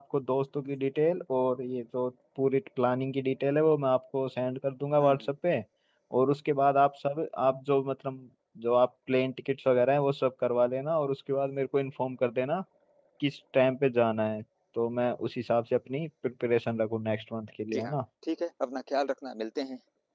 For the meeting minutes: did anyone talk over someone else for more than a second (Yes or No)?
No